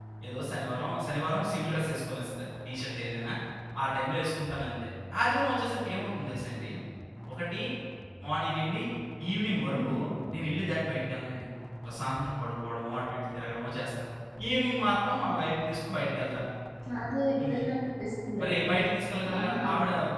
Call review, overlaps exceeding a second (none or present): none